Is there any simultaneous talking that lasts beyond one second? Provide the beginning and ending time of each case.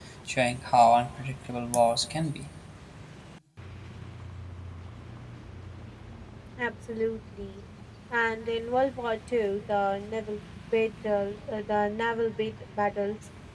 none

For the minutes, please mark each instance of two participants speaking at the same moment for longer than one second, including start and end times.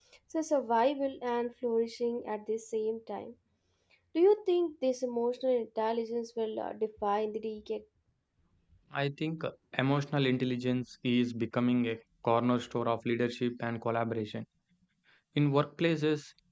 none

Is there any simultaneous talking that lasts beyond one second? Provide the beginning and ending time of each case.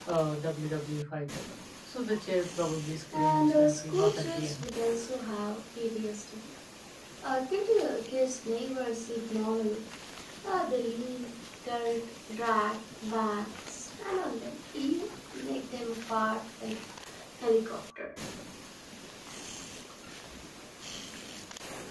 3.1-4.7

